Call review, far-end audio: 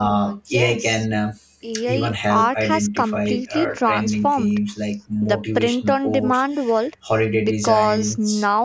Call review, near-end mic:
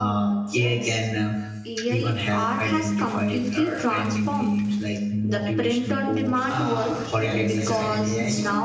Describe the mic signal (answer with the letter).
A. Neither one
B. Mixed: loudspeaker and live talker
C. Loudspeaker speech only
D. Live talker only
B